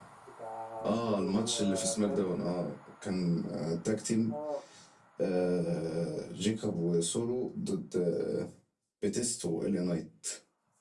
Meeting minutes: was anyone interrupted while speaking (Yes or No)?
Yes